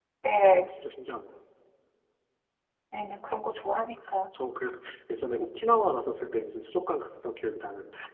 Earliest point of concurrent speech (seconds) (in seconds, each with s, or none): none